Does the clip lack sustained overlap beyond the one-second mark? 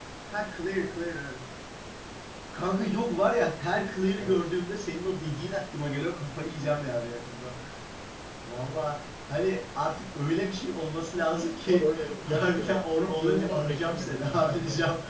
No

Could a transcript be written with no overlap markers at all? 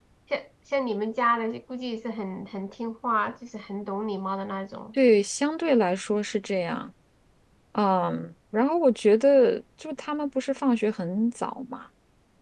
Yes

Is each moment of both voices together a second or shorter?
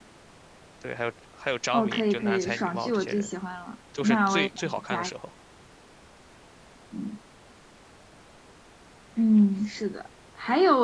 No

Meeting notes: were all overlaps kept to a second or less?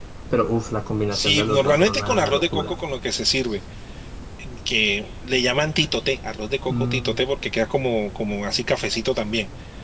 No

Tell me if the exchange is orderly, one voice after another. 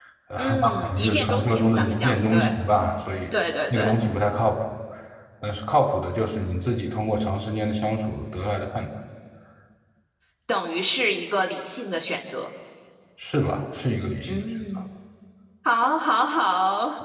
No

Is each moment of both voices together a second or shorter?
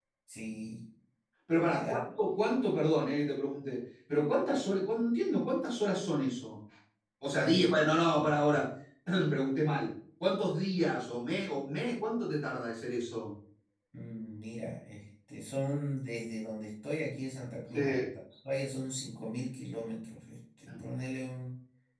Yes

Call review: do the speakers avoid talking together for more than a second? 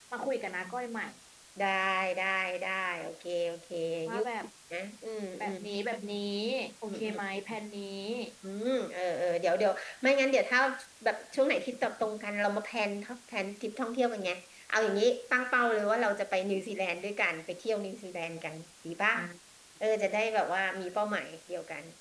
Yes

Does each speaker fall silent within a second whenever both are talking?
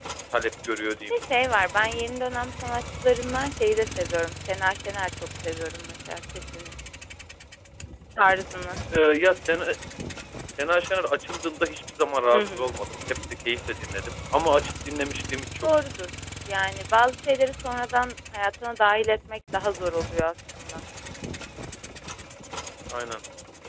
Yes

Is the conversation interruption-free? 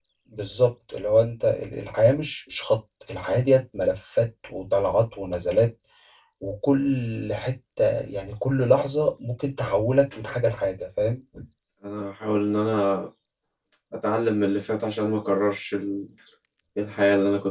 Yes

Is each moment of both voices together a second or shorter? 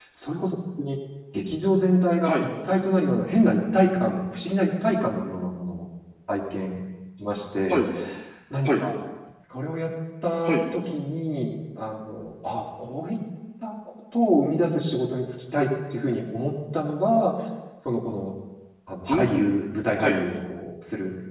Yes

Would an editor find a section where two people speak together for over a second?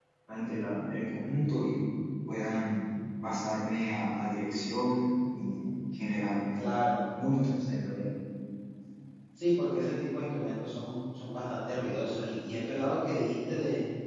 No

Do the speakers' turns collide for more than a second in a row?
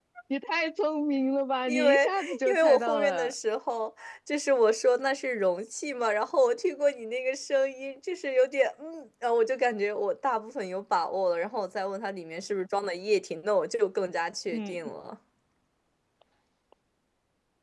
Yes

